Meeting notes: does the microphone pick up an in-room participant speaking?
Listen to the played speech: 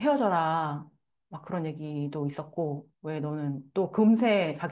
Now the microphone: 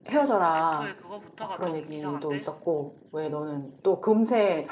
Yes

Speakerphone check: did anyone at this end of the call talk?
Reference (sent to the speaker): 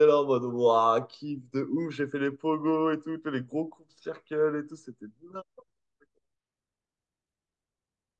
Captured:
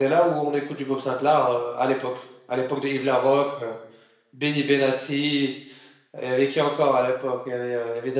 Yes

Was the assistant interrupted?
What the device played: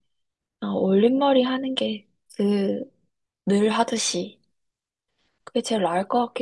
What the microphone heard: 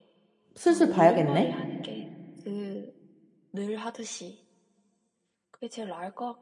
Yes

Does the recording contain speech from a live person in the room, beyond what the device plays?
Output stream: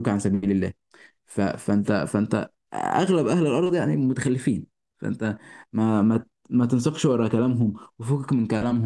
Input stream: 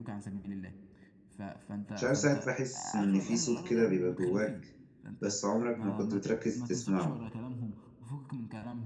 Yes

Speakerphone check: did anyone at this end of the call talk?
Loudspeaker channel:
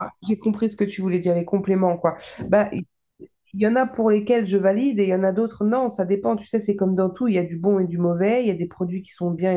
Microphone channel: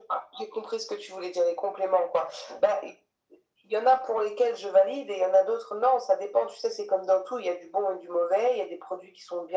No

